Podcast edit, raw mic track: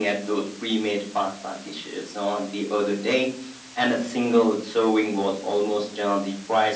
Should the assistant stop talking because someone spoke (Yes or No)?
No